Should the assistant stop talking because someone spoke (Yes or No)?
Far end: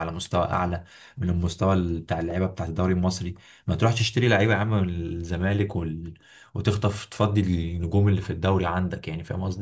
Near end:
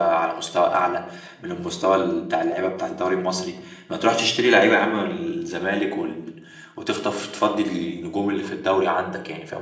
No